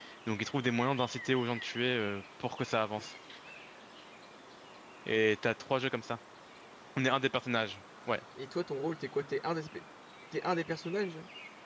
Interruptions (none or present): none